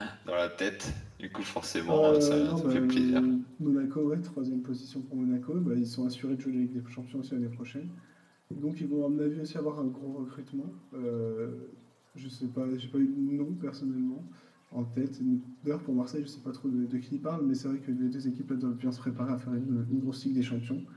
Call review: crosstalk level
present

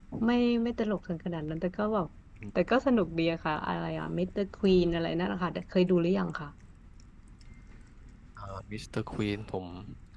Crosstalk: none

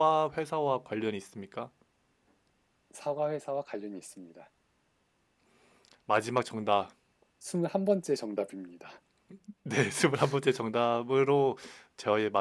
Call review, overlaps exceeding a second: none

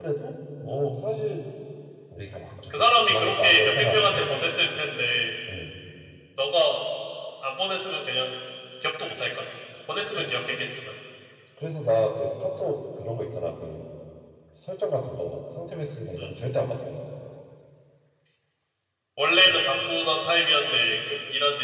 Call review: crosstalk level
present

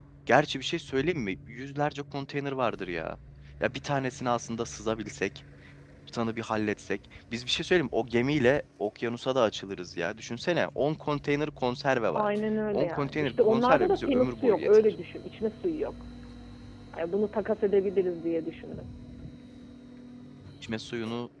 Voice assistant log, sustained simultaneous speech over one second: present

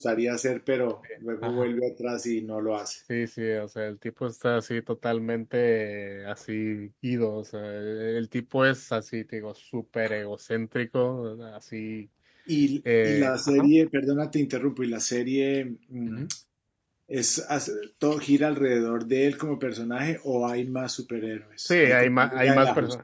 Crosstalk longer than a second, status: present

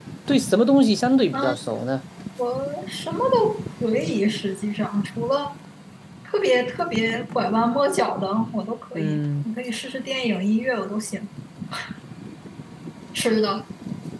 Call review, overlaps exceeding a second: none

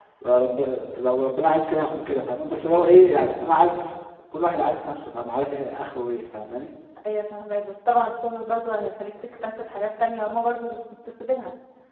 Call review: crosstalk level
none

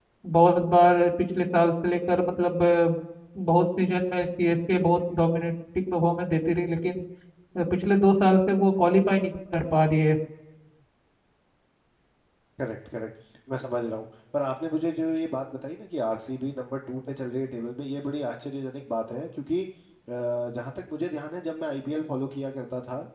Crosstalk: none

